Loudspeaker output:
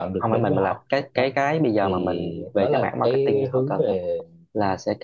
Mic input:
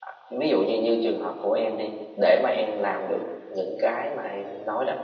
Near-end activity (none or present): present